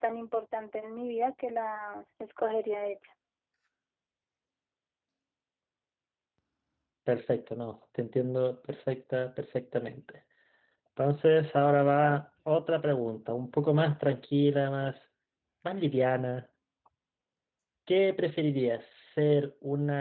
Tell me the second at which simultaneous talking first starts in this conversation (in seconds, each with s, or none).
none